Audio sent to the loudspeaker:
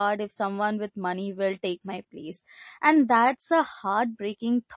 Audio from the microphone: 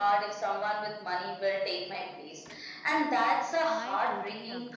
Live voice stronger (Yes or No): No